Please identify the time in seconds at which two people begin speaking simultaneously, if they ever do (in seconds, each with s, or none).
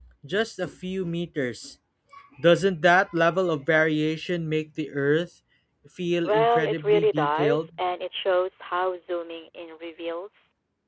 6.2 s